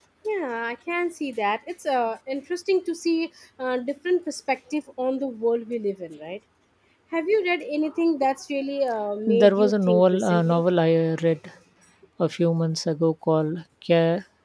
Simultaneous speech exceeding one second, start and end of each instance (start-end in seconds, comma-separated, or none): 9.3-10.6